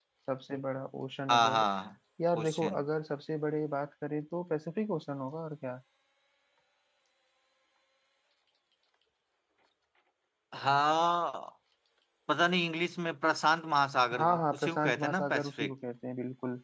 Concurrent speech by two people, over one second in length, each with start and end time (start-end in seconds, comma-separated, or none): 14.2-15.7